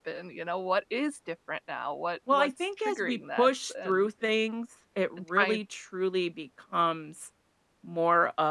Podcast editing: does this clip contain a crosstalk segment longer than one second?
Yes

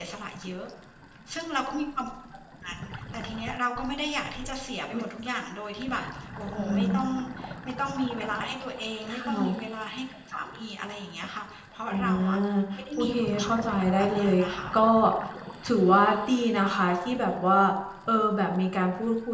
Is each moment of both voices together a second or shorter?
No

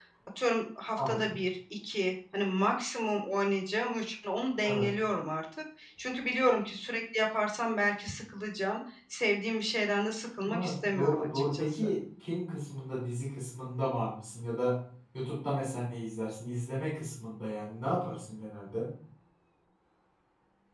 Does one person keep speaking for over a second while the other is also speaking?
Yes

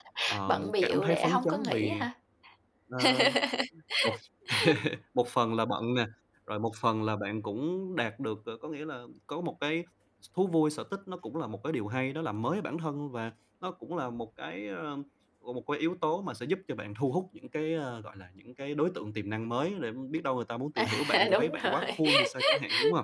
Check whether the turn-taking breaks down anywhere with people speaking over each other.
Yes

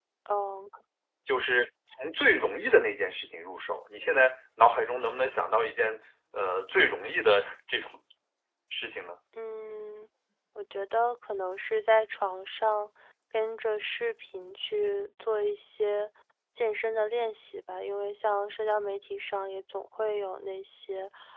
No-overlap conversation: Yes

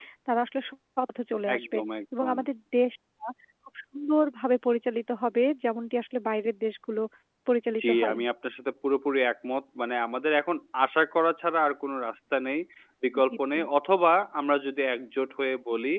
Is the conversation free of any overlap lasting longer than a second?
Yes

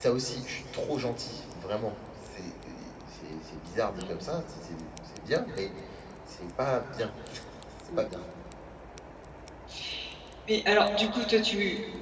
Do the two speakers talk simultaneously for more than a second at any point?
No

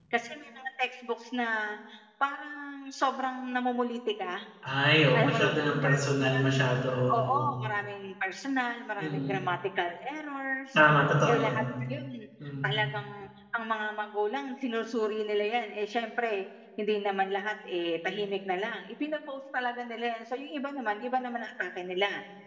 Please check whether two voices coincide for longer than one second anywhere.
Yes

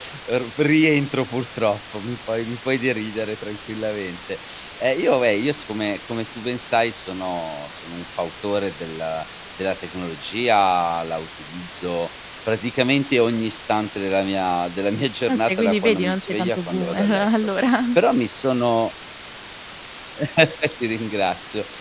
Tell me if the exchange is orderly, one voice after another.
No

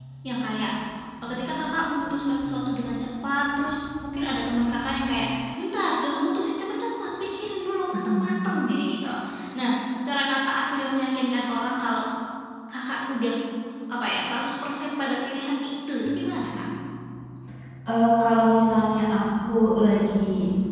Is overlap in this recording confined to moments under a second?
Yes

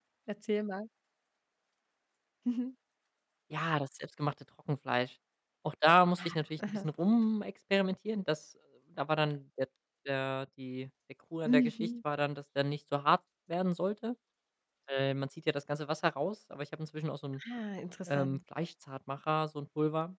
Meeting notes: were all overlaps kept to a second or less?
Yes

